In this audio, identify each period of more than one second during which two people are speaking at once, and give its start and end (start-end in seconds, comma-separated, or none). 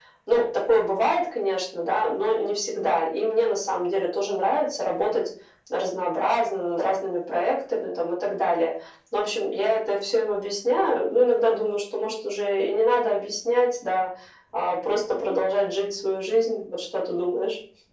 none